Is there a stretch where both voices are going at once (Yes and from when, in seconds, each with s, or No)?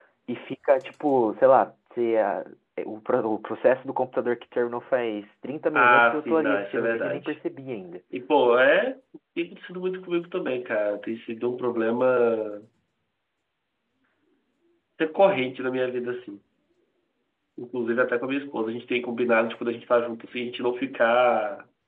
Yes, from 5.7 s